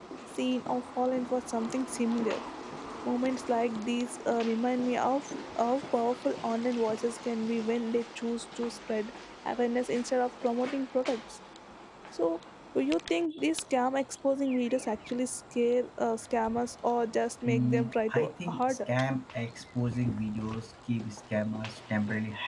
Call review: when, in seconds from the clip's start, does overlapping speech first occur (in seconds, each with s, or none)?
17.4 s